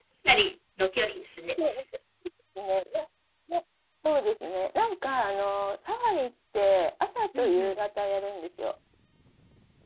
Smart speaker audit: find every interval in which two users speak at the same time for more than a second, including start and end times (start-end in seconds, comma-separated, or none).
none